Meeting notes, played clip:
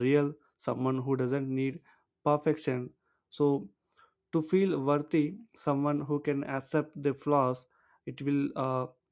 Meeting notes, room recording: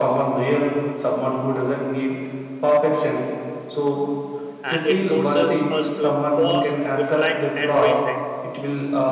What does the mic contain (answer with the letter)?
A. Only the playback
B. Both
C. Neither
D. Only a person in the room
B